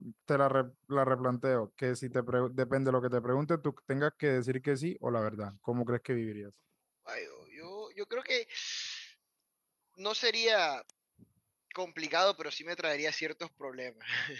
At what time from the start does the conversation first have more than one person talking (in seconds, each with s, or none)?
none